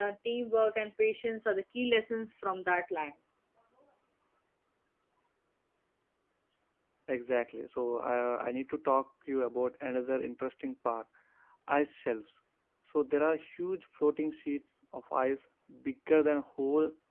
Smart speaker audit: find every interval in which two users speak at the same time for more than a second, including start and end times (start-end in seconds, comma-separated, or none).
none